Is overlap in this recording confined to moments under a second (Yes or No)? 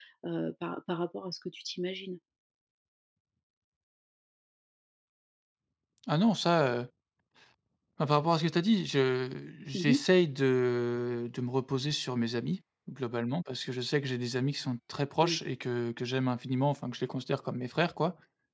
Yes